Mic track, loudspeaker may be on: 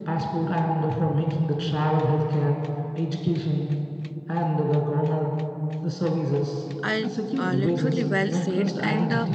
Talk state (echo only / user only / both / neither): both